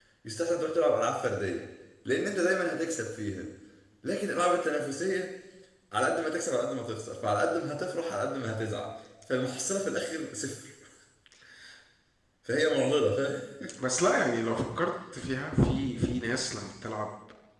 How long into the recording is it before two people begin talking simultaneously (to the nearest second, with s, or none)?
none